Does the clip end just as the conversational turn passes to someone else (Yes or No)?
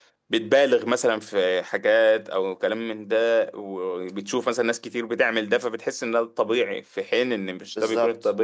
Yes